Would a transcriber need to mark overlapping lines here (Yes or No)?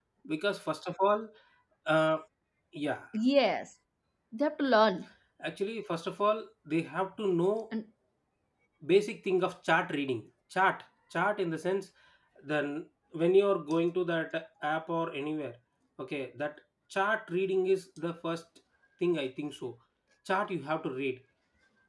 No